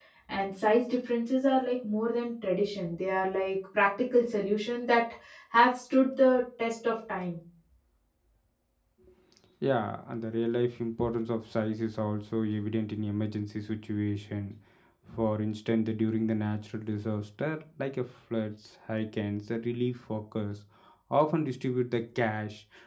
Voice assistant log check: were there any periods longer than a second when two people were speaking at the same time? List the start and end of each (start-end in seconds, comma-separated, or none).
none